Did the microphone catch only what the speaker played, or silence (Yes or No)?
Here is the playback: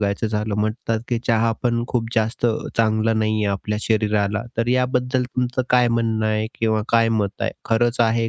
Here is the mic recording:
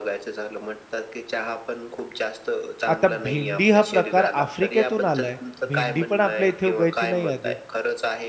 No